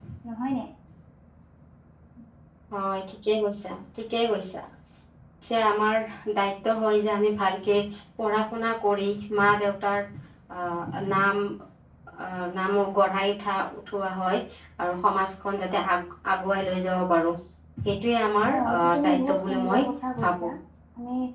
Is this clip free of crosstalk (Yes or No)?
No